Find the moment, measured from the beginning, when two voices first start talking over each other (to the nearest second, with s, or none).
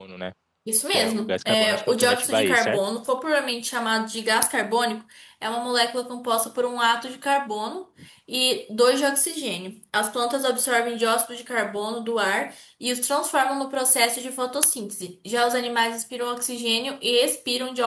1 s